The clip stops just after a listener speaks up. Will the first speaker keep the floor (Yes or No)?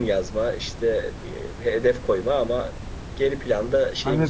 No